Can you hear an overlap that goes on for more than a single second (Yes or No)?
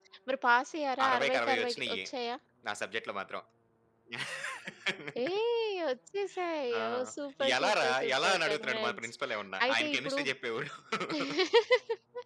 Yes